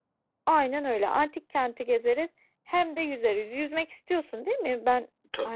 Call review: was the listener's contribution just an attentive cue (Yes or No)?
No